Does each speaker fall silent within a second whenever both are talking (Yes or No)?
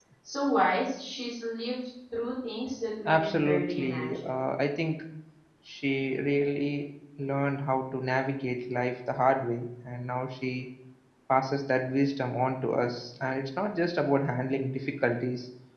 No